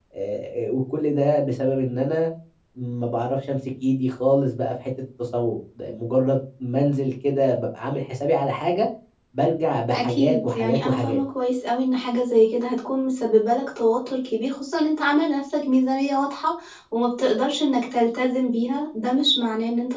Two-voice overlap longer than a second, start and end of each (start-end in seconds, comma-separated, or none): 9.9-11.2